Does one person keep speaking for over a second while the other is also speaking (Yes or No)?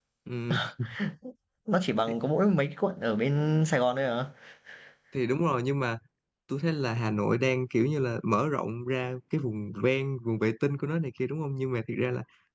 No